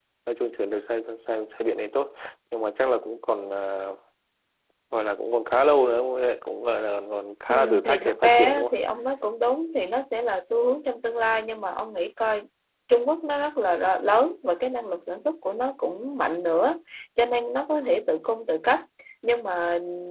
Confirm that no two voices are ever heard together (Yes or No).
No